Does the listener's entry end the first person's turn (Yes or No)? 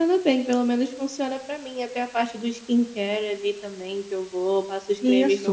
Yes